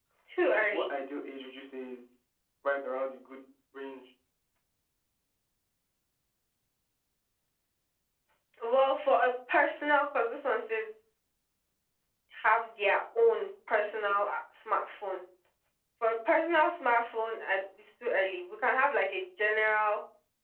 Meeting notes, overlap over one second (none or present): none